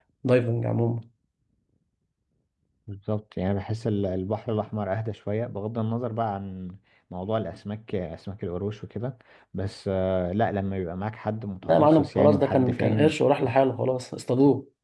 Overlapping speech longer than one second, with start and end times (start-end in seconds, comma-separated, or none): 11.6-13.1